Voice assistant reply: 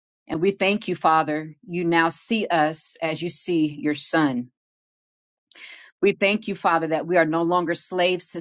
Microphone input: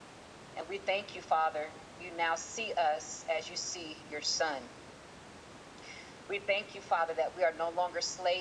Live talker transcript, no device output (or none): none